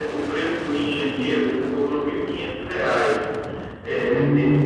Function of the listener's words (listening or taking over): listening